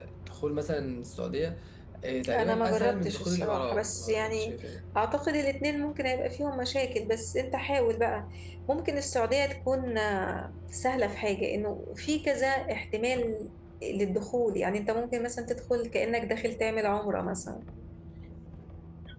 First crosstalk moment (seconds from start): 2 s

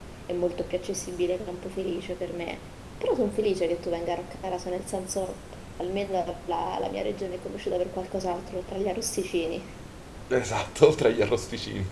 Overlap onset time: none

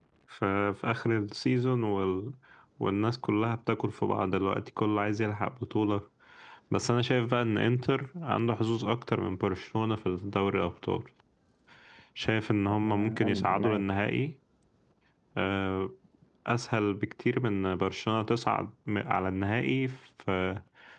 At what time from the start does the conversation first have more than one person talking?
13 s

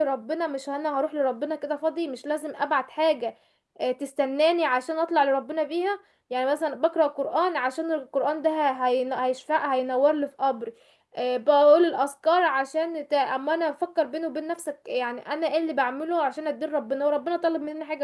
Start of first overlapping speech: none

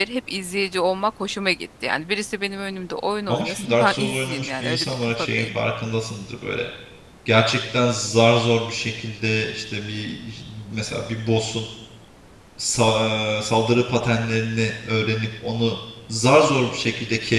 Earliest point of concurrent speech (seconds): 3 s

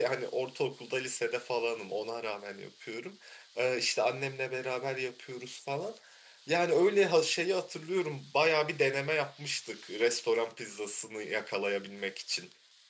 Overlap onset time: none

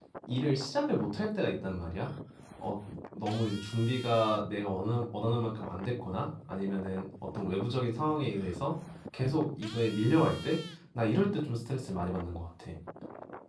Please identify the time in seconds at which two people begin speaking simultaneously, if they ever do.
none

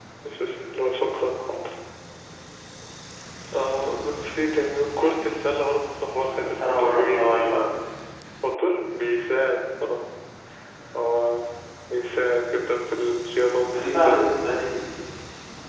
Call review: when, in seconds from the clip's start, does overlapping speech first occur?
6 s

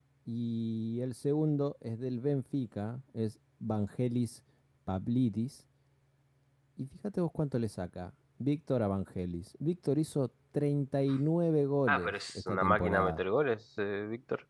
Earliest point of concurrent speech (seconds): 12 s

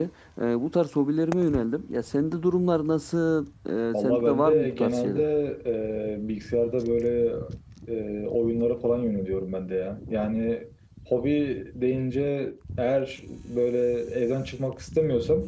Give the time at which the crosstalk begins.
4 s

